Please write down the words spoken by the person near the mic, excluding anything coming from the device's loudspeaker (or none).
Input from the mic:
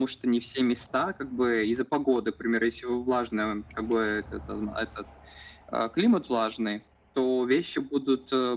none